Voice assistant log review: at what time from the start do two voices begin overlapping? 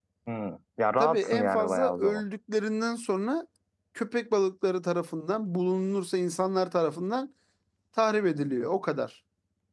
1 s

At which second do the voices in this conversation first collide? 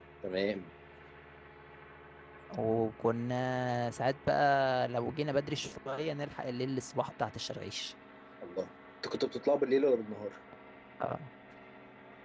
none

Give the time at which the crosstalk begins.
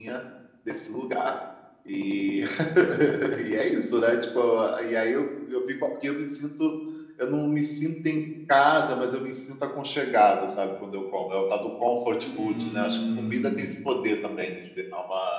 12 s

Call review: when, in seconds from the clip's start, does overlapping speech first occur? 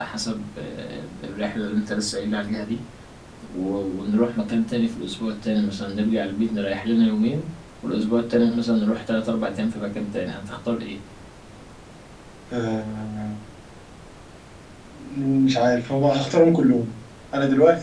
none

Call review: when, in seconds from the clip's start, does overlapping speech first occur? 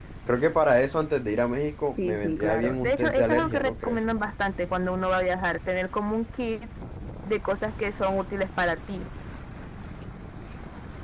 2 s

